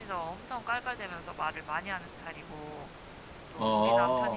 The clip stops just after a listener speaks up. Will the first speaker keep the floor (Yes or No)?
Yes